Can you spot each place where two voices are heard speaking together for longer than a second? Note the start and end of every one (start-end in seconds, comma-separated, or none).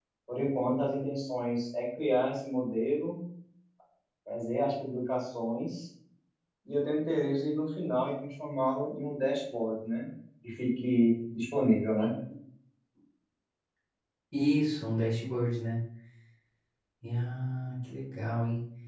none